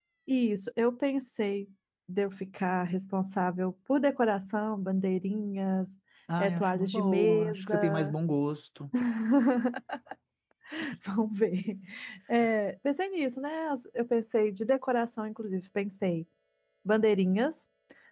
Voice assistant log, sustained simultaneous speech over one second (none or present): present